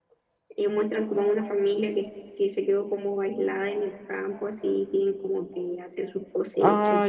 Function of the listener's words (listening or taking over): taking over